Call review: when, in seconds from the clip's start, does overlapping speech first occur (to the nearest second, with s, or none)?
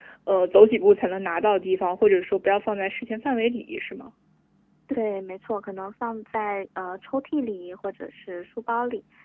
none